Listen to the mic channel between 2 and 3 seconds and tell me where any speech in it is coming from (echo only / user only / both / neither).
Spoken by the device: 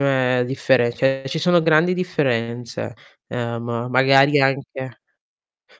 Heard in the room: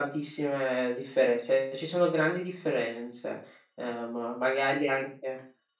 echo only